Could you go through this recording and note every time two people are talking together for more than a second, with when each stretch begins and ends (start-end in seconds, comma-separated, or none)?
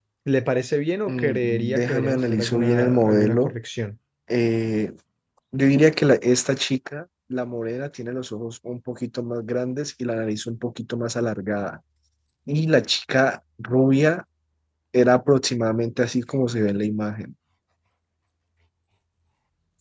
1.1-3.5